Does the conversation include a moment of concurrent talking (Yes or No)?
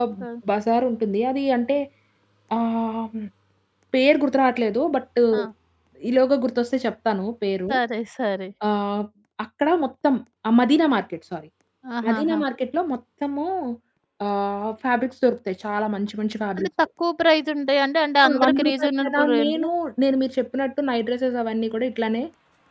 Yes